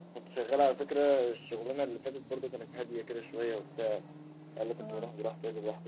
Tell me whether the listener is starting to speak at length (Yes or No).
No